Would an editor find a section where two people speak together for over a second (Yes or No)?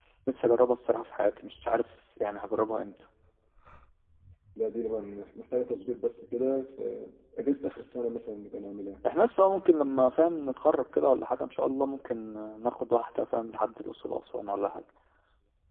No